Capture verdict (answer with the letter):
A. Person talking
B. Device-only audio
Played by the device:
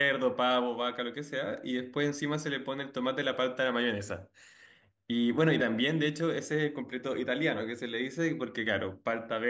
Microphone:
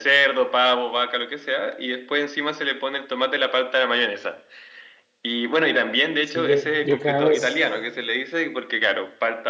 A